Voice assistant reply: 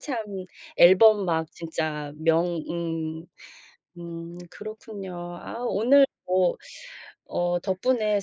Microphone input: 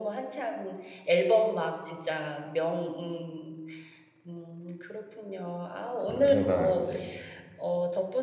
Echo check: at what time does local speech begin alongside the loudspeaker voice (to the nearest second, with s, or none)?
6 s